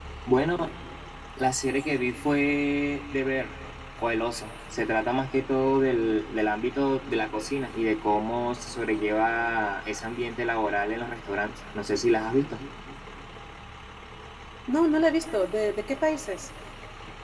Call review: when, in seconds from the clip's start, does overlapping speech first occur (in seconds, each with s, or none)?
none